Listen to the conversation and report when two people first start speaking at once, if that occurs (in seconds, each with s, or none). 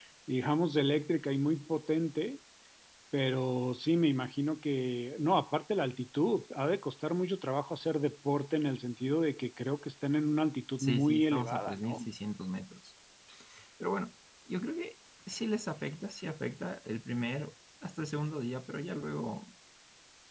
10.8 s